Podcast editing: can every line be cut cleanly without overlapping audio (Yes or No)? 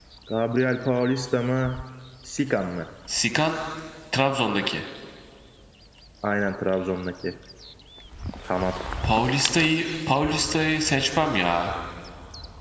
Yes